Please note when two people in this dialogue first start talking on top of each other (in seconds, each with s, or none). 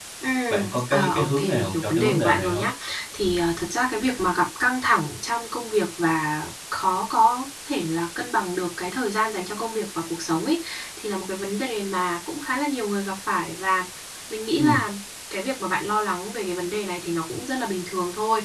0.5 s